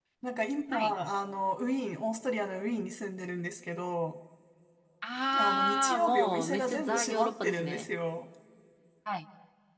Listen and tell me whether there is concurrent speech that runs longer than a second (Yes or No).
Yes